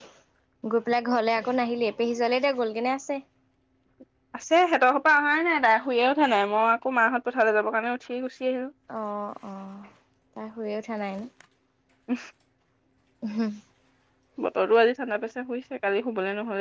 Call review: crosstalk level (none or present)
none